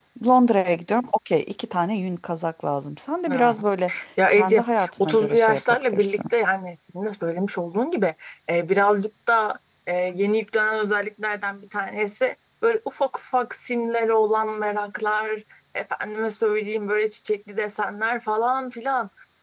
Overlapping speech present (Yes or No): Yes